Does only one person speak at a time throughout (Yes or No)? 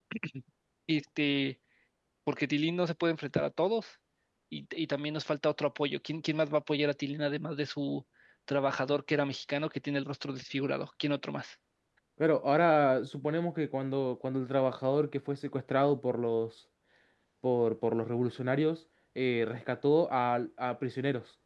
Yes